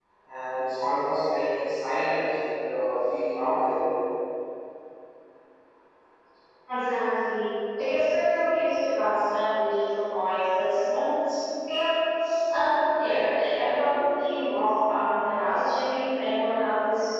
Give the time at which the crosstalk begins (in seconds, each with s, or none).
none